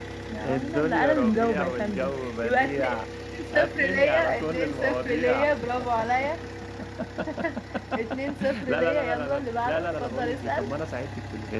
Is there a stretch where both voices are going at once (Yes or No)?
Yes